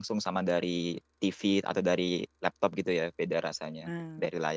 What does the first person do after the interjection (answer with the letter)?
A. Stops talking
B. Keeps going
A